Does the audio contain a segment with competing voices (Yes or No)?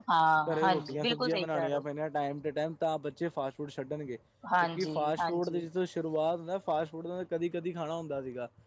Yes